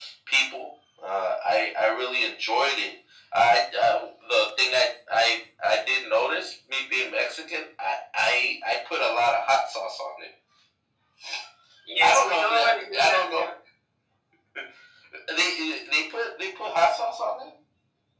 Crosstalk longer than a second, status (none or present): present